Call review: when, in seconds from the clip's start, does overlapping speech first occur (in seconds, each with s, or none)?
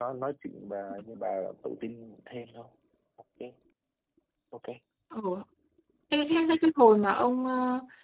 none